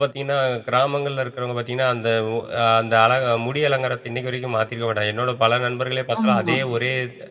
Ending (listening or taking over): listening